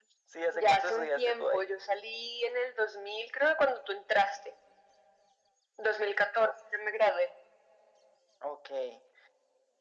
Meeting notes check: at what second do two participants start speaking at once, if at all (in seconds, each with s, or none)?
0.5 s